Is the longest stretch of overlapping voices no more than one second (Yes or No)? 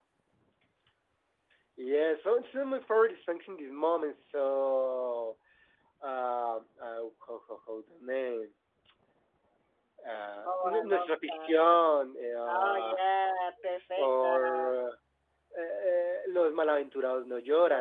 No